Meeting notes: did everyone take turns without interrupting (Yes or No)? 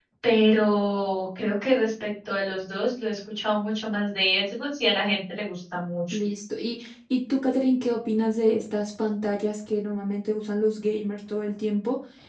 Yes